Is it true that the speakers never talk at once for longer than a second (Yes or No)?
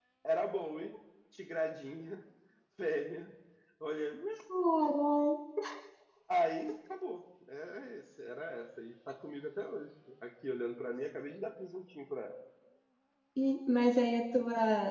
Yes